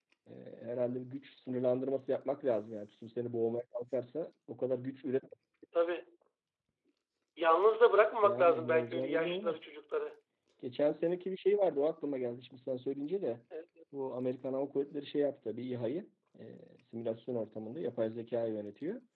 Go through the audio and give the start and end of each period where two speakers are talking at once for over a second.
8.2-9.6

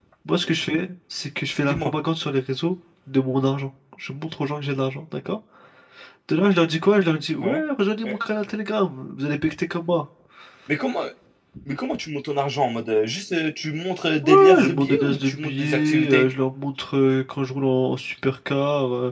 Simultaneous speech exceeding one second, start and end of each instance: 14.2-16.2

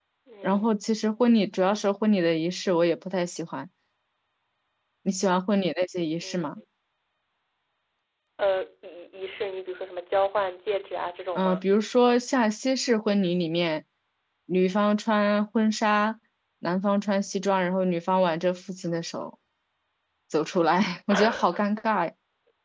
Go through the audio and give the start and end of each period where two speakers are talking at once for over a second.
none

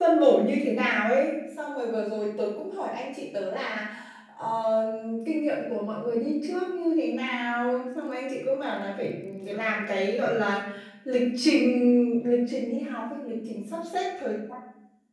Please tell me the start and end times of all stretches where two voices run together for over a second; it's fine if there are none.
none

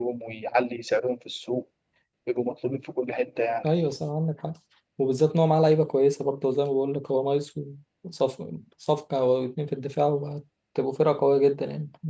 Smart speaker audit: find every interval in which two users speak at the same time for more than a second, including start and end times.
none

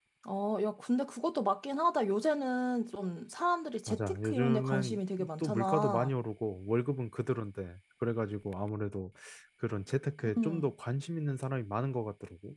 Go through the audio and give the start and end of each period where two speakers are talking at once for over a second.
3.9-6.1

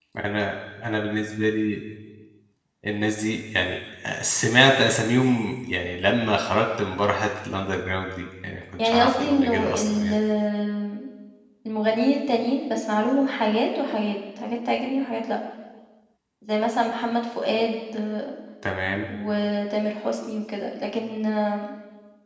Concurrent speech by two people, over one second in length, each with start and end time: 8.8-10.1

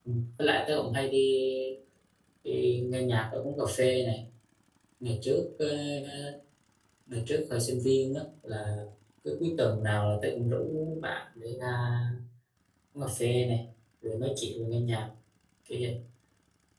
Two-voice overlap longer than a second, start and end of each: none

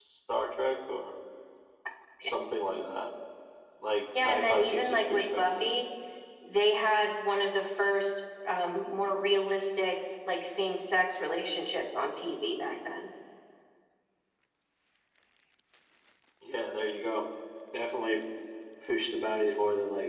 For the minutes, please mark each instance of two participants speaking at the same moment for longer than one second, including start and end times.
4.2-5.7

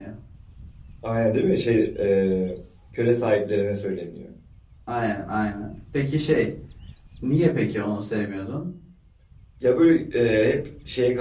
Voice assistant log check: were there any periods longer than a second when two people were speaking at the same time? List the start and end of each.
none

